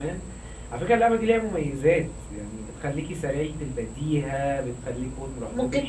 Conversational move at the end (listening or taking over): taking over